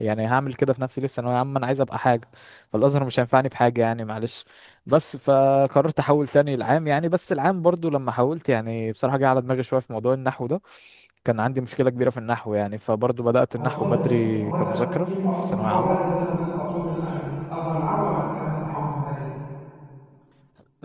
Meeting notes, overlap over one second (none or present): present